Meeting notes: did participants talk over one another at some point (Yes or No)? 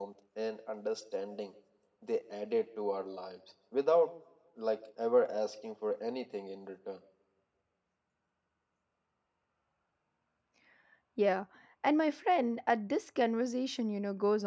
No